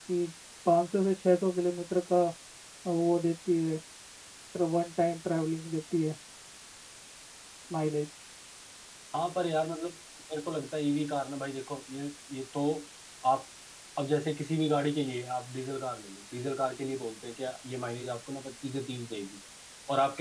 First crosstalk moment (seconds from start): none

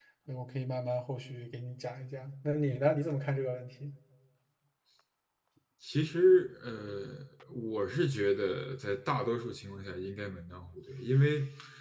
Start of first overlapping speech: none

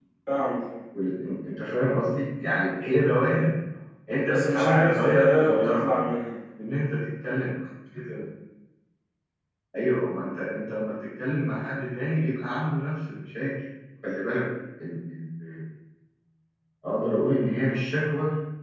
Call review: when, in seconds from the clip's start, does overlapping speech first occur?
4.3 s

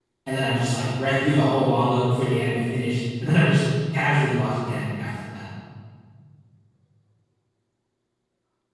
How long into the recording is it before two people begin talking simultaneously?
none

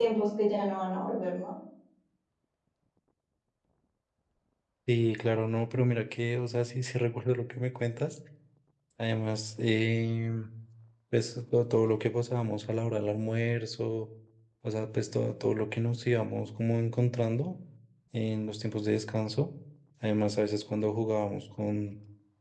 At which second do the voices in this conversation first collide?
none

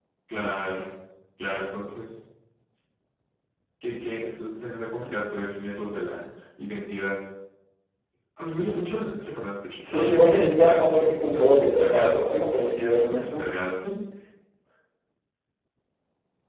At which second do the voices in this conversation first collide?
9.8 s

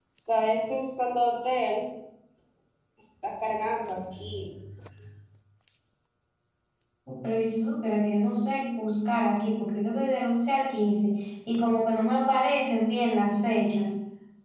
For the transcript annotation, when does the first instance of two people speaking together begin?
none

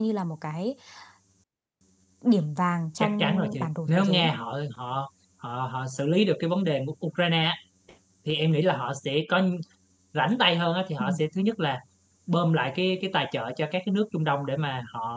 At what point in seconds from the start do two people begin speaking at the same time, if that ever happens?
3.0 s

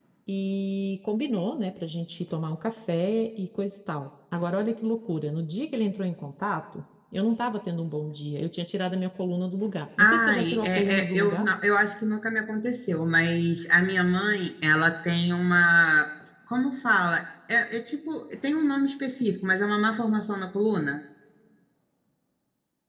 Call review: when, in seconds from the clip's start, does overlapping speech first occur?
10.0 s

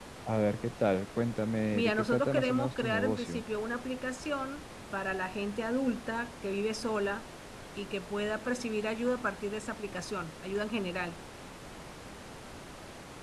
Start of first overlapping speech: 1.7 s

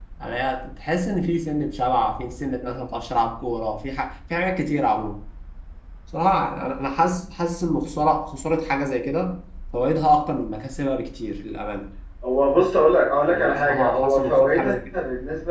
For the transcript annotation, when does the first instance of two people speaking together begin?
13.3 s

